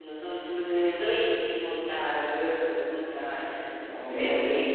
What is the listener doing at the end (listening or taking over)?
taking over